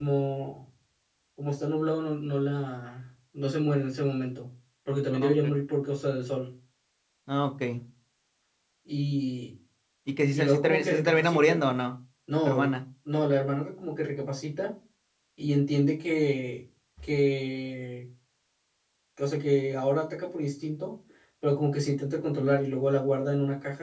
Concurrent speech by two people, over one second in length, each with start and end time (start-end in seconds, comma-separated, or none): 10.3-11.6